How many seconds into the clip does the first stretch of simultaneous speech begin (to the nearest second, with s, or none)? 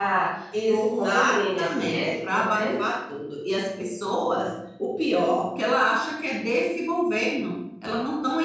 1 s